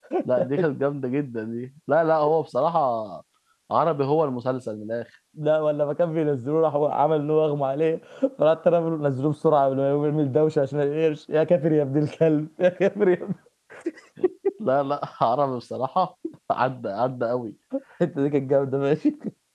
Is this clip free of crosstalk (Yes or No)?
Yes